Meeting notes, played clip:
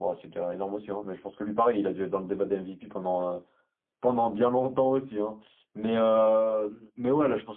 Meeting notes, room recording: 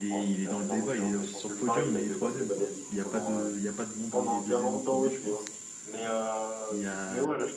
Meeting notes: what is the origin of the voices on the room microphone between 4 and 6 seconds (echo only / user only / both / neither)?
both